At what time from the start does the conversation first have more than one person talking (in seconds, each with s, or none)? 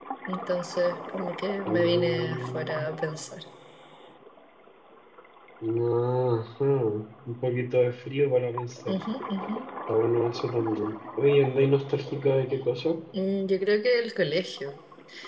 1.7 s